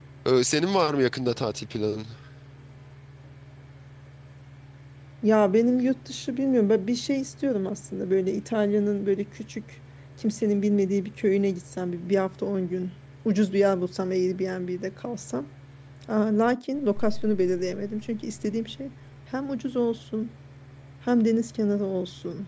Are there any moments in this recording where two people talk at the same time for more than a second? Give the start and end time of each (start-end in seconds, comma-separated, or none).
none